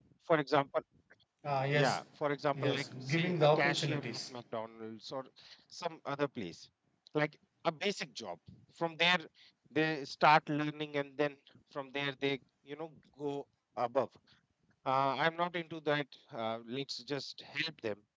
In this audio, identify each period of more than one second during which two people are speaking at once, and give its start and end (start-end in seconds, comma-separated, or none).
2.6-4.2